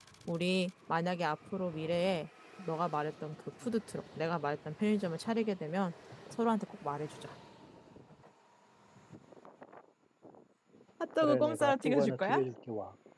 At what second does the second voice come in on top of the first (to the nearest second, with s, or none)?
11 s